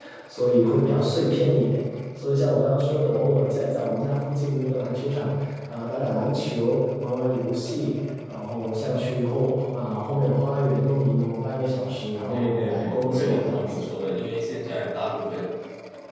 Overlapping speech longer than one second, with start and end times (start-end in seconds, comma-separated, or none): 12.3-13.9